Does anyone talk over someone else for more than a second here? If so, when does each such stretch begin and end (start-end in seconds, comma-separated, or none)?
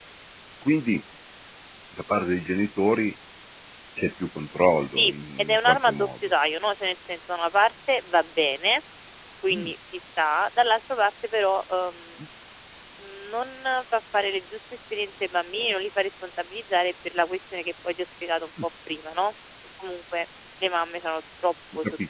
4.9-6.1